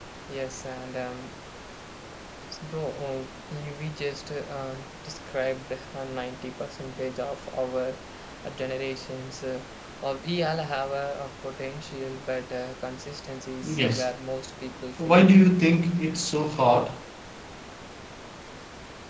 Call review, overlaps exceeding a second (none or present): none